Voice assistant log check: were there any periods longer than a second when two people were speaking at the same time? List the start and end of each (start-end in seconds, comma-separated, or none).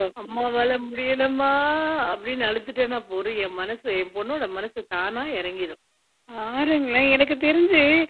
none